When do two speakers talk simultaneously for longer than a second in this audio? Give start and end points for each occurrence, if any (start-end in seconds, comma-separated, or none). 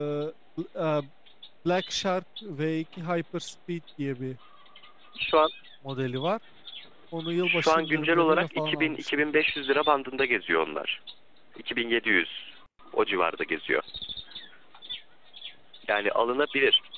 7.4-9.1